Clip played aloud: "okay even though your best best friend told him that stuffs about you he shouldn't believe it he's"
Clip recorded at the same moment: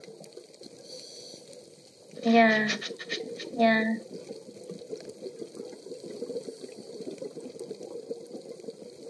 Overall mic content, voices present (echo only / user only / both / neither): user only